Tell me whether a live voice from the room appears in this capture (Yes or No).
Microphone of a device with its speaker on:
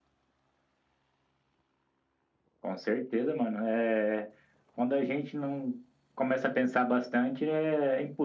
No